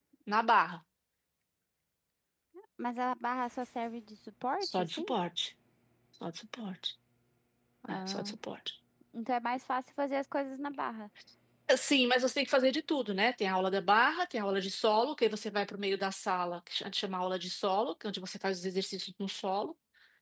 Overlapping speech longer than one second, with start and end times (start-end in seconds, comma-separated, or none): none